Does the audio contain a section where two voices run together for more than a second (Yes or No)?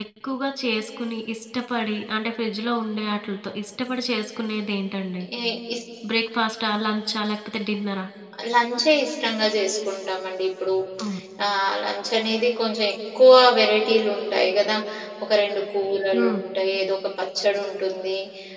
No